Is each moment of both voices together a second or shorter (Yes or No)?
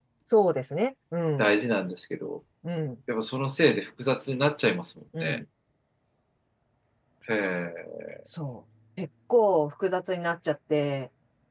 Yes